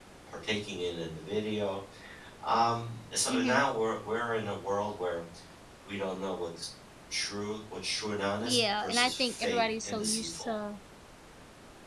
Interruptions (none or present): present